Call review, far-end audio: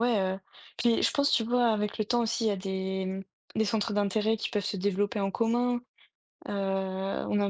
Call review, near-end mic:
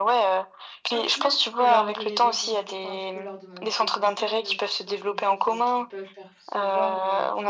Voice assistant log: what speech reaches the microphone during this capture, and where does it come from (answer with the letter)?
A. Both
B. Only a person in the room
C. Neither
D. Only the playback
A